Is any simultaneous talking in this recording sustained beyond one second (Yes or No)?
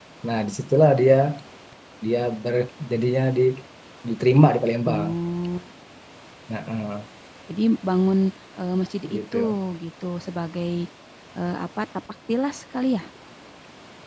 No